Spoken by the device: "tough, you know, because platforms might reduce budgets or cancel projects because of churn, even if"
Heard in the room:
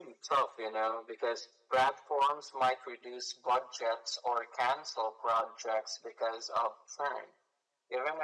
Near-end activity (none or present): none